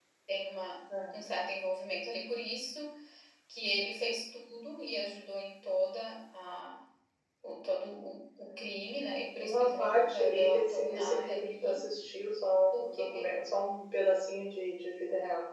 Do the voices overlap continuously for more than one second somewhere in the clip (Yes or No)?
Yes